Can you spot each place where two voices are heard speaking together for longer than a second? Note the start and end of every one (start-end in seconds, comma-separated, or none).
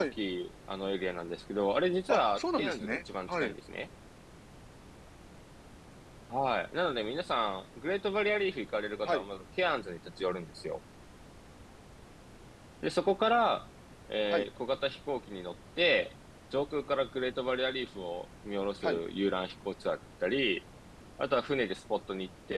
2.1-3.5